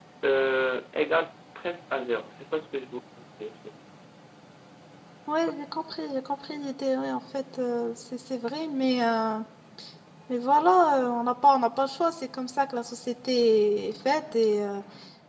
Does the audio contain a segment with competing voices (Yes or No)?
No